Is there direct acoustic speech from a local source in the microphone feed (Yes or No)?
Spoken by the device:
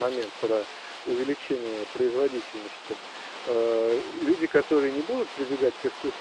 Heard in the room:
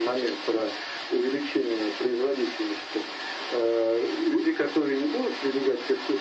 No